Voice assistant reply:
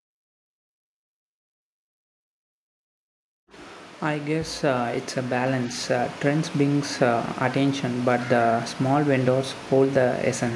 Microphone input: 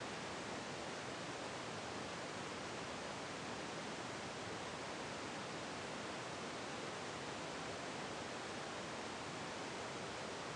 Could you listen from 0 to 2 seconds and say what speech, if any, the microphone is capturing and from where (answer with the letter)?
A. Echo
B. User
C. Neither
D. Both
C